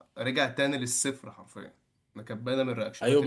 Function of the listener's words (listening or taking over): taking over